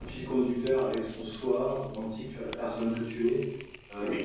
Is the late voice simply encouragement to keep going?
Yes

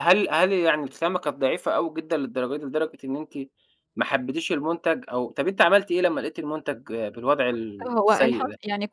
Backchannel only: No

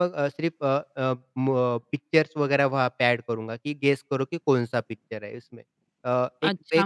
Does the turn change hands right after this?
Yes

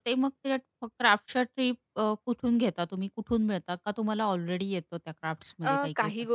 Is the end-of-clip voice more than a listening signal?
Yes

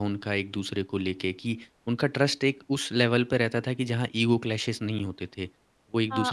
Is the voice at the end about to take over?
Yes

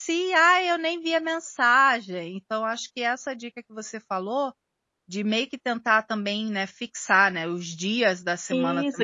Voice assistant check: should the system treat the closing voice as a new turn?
Yes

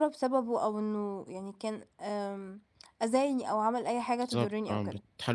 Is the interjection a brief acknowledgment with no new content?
No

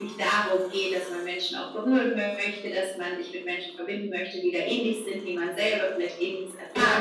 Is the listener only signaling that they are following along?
No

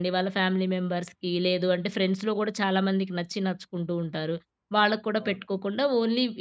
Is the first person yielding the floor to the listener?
No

